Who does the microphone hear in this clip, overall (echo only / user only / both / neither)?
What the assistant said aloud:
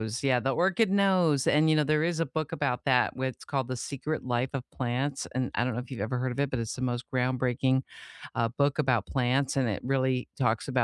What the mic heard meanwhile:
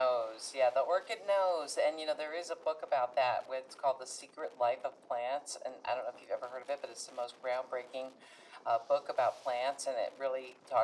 echo only